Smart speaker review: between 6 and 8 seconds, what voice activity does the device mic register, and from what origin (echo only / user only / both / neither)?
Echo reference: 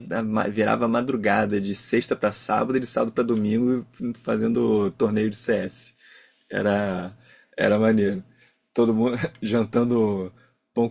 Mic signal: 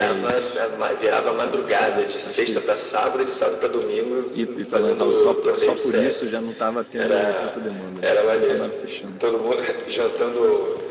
both